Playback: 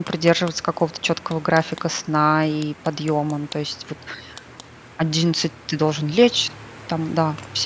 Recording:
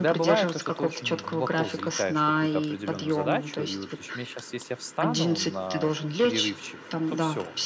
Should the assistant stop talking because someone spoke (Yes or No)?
Yes